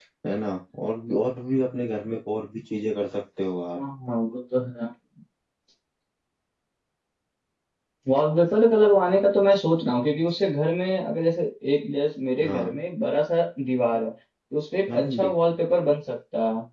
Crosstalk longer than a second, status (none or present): none